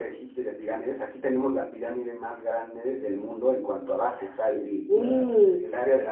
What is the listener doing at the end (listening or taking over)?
listening